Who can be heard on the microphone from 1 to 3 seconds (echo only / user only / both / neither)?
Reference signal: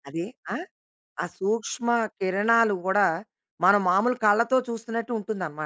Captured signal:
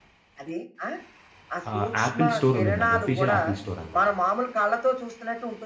both